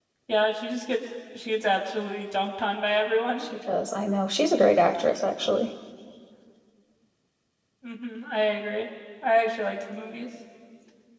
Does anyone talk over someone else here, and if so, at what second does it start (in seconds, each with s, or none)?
none